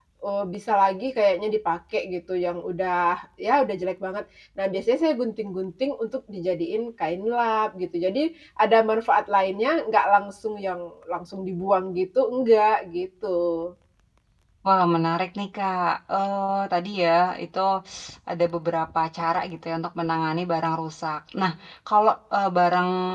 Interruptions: none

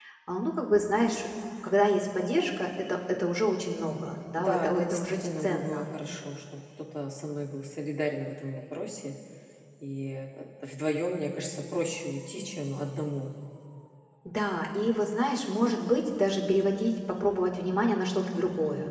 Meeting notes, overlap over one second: present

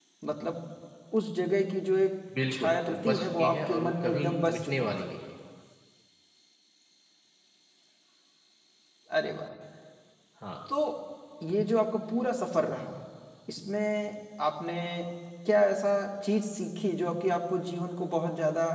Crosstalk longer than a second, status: present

